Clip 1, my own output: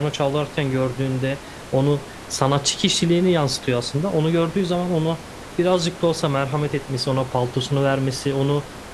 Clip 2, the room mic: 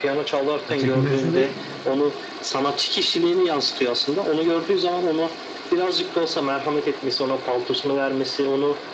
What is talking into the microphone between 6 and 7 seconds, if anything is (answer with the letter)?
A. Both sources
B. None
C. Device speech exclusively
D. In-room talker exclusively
C